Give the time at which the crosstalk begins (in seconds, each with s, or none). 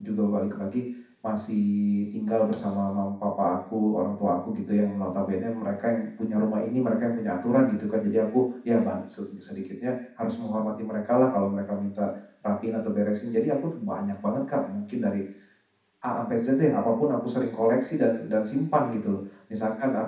none